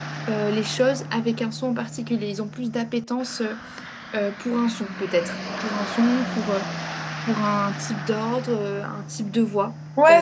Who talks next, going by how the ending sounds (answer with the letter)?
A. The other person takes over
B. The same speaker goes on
A